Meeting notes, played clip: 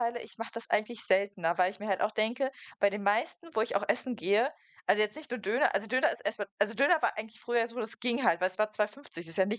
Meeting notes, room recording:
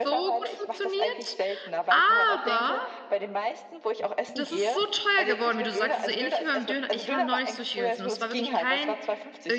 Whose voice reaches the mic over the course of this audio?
both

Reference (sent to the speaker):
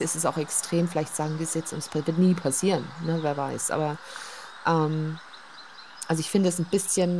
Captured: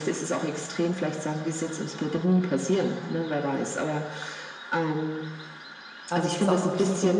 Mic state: both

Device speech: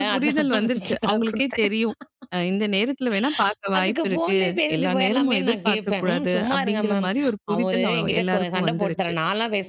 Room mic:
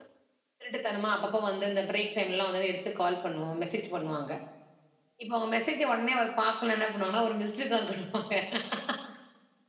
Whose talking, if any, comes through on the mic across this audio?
user only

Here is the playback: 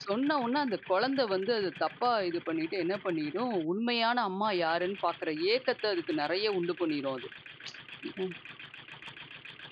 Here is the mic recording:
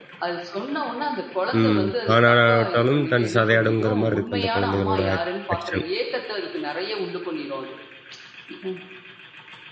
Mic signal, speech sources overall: both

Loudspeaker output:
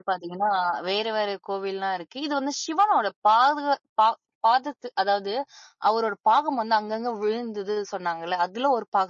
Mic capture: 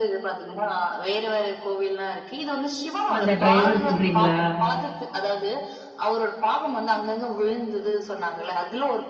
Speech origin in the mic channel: both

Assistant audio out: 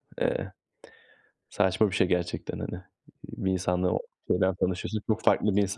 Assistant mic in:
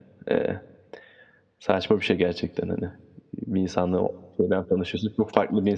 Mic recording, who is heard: echo only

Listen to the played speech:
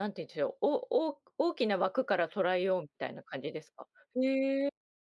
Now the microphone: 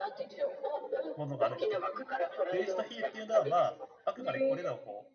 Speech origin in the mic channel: both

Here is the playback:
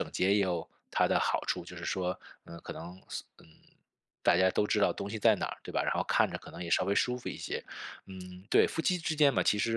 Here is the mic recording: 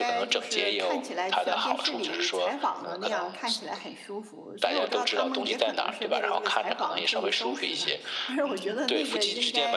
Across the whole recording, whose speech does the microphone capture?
both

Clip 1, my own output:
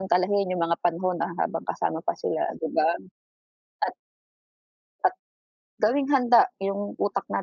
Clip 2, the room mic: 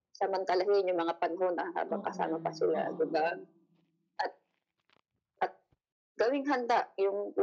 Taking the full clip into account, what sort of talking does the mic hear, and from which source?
both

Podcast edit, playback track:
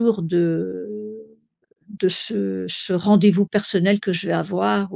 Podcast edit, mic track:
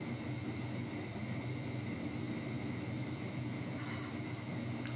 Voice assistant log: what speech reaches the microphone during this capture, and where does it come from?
neither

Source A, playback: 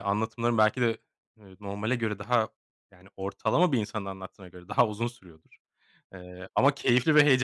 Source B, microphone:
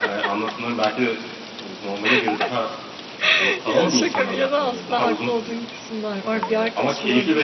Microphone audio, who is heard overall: both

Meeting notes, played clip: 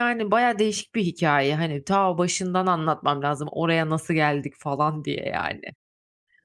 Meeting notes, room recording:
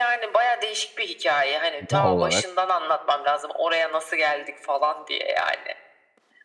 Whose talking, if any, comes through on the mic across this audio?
both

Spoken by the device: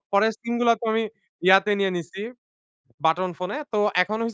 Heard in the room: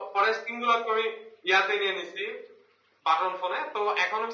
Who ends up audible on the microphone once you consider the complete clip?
echo only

